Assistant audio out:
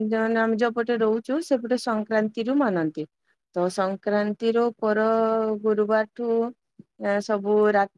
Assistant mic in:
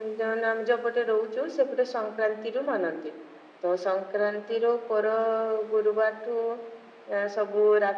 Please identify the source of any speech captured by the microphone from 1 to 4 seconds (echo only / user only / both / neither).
echo only